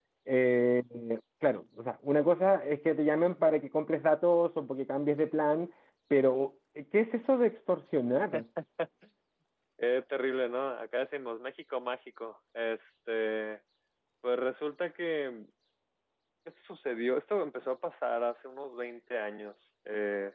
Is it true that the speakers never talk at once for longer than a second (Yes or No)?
Yes